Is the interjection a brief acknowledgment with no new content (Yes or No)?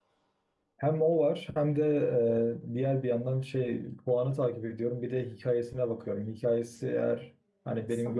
Yes